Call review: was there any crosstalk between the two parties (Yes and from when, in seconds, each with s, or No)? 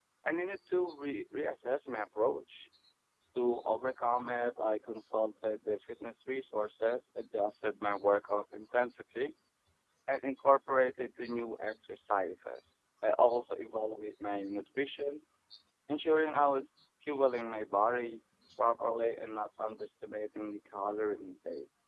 No